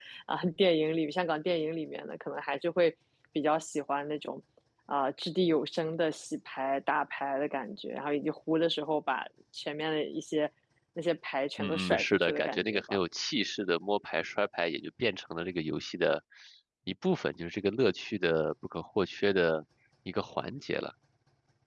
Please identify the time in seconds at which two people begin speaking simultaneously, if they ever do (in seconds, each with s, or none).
11.6 s